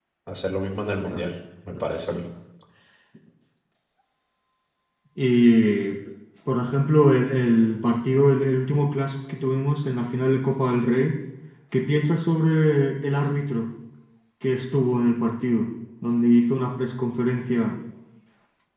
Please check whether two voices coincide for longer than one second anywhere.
No

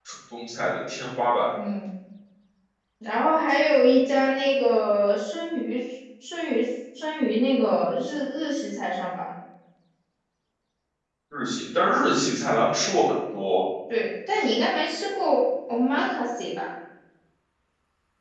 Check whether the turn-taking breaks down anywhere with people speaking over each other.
No

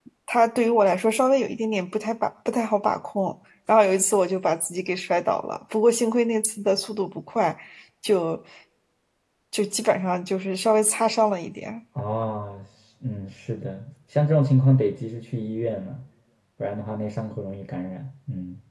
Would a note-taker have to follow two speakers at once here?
No

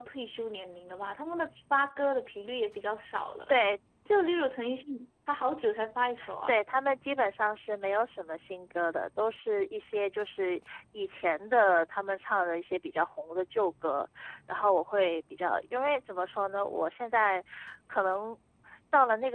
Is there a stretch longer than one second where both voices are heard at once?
No

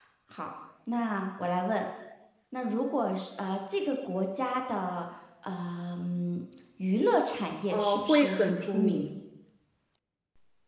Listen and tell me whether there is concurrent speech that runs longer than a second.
Yes, from 7.7 s

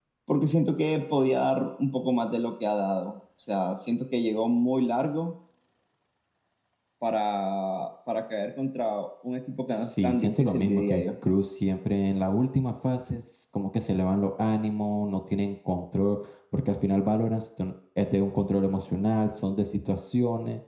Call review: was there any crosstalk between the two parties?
Yes, from 9.7 s

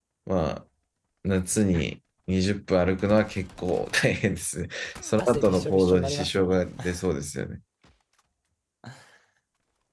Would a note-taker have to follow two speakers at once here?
Yes, from 5.2 s

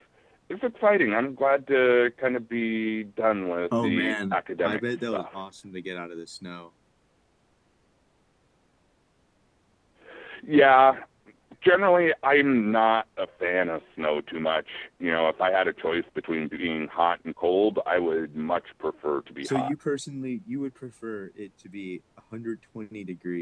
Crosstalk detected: Yes, from 3.8 s

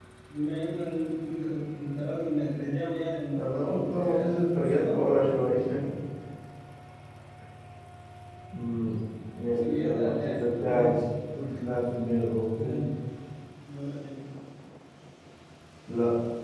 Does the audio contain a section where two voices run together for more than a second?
Yes, from 3.3 s

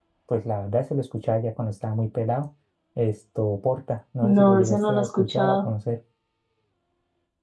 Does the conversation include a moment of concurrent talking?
Yes, from 4.2 s

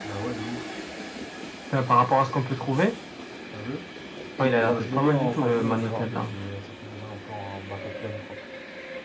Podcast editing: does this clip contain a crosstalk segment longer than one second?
Yes, from 4.4 s

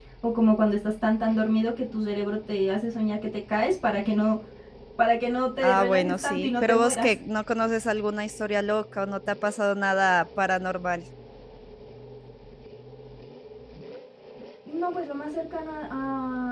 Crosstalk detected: Yes, from 5.6 s

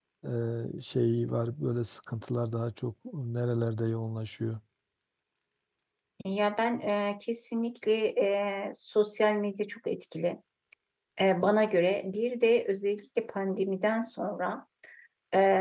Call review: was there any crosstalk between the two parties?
No

